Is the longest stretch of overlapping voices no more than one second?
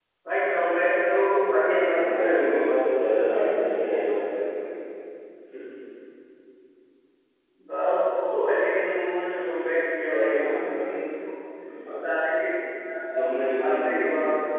No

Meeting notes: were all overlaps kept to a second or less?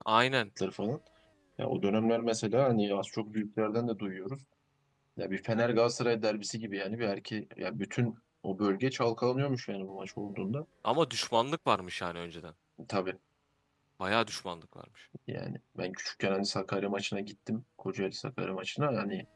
Yes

